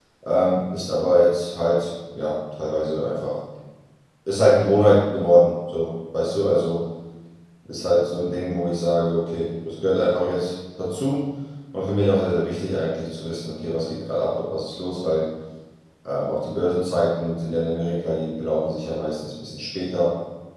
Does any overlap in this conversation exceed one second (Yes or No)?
No